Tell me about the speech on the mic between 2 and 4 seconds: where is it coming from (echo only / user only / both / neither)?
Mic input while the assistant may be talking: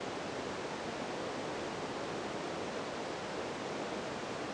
neither